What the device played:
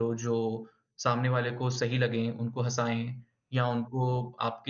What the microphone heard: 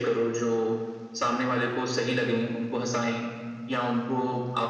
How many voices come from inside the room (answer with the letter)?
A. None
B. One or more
A